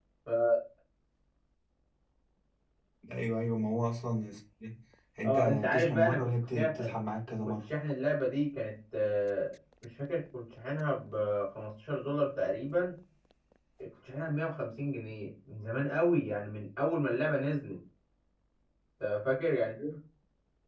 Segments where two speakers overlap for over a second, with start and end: 5.2-7.0

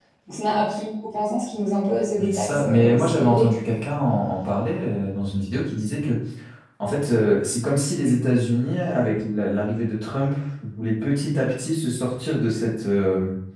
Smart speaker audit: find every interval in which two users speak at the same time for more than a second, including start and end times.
2.2-3.5

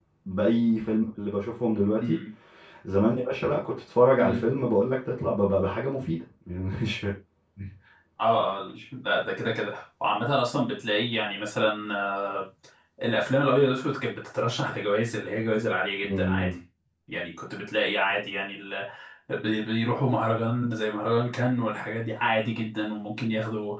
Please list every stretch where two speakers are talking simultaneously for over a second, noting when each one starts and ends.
none

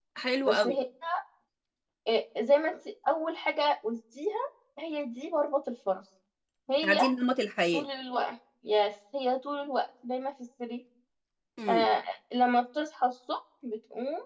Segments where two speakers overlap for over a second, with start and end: none

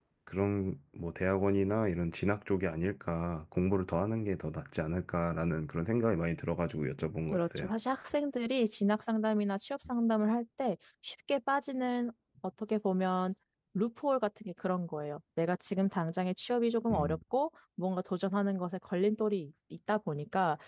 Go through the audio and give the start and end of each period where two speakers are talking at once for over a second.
none

